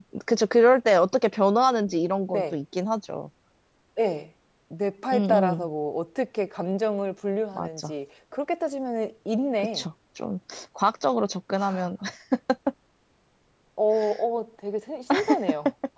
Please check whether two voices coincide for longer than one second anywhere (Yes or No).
No